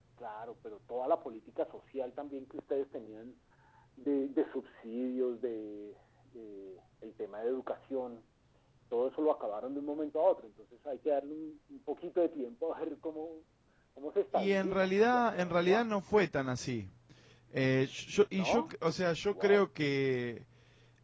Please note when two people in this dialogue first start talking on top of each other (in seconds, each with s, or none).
14.3 s